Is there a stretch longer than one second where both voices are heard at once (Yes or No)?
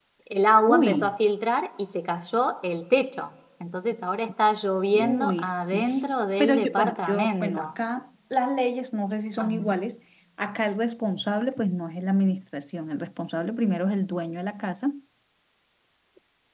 Yes